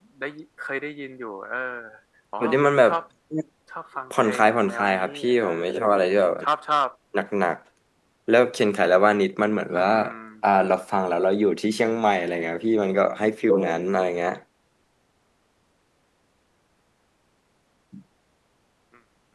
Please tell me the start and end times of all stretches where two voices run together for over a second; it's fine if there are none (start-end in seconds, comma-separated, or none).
4.1-5.4